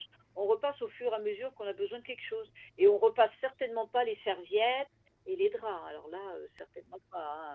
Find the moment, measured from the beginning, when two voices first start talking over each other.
none

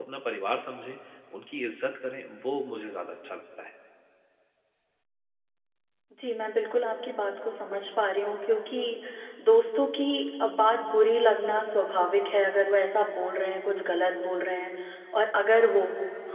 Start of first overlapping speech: none

